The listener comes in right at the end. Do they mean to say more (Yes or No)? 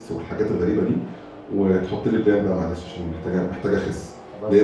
No